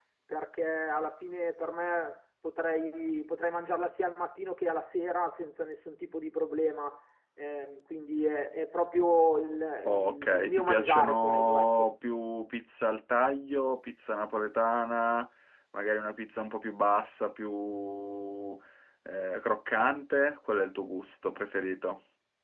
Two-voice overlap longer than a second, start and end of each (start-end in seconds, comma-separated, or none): 9.8-11.9